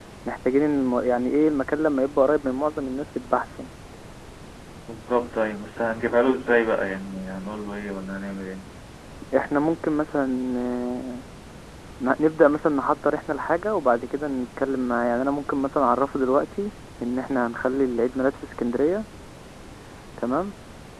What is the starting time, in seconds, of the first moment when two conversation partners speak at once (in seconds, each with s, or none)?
none